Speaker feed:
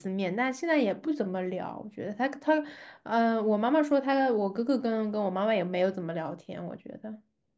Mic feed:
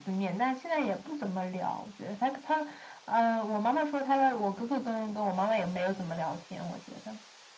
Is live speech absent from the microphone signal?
Yes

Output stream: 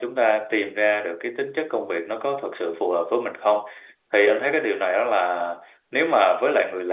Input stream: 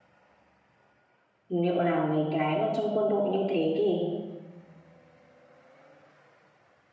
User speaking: Yes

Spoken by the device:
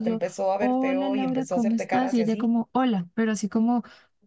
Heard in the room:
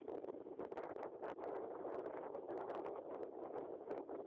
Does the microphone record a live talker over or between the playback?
No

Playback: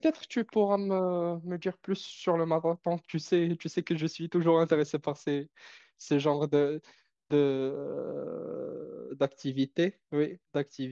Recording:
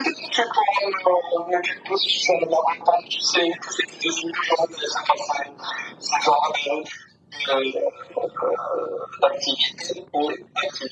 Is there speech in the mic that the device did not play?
No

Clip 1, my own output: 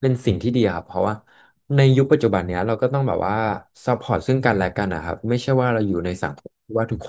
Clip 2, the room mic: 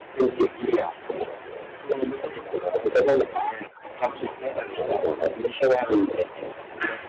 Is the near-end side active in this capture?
No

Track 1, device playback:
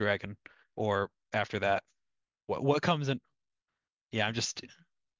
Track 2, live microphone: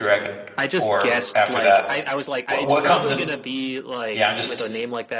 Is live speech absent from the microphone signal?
No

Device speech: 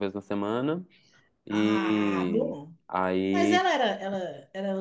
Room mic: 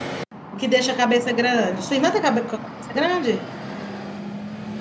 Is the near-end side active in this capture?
Yes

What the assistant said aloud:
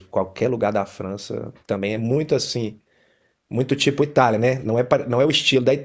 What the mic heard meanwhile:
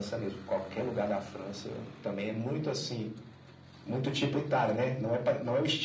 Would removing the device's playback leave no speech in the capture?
Yes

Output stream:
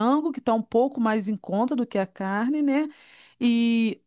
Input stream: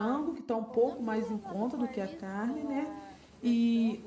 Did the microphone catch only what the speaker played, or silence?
No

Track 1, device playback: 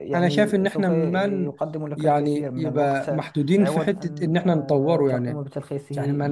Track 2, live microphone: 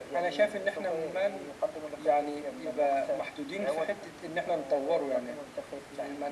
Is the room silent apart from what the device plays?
Yes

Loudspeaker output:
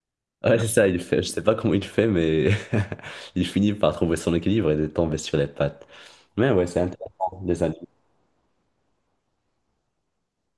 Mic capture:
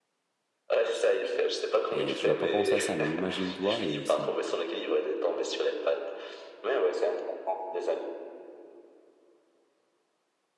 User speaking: Yes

